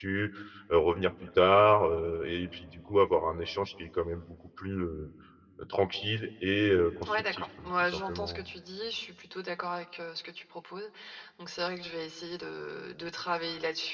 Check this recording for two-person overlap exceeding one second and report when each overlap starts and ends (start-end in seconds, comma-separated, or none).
7.0-8.4